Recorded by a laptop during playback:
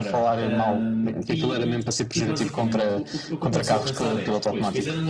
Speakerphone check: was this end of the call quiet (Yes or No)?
No